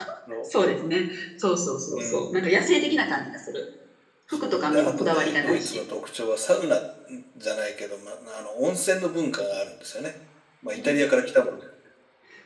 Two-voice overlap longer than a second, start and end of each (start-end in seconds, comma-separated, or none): 4.3-5.8